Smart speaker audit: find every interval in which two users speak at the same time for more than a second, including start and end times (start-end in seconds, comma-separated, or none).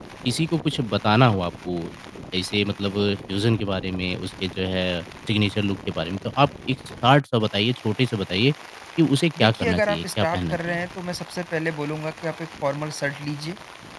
9.4-10.8